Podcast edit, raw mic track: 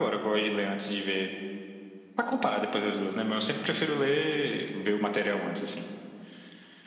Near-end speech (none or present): none